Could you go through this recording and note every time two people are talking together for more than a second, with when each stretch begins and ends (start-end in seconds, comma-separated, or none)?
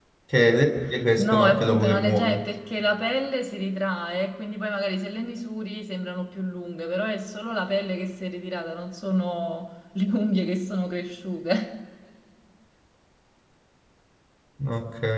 1.2-2.4